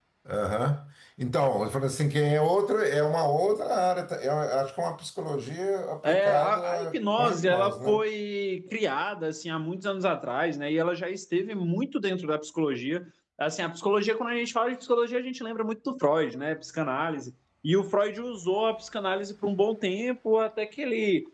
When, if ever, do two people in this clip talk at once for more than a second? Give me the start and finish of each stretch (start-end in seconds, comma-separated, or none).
6.0-8.0